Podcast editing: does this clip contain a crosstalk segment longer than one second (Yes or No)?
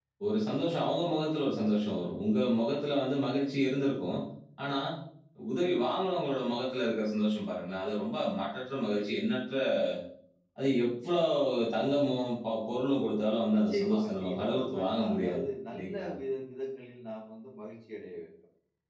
Yes